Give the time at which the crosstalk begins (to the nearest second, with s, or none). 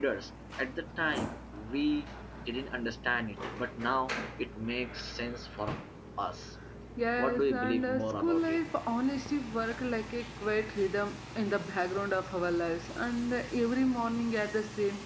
7 s